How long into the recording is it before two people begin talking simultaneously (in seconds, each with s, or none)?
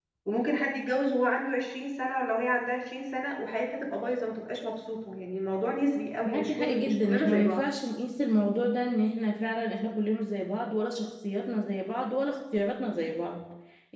6.2 s